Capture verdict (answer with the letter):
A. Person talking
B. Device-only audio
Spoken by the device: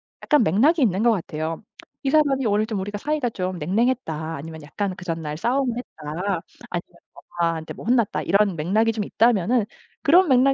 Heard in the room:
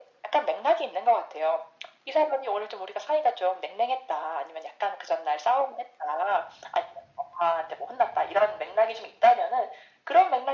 B